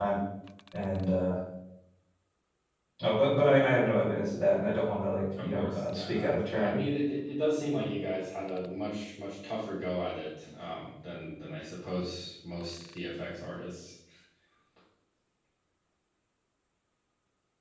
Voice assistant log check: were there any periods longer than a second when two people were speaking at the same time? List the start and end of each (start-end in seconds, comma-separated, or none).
5.4-6.7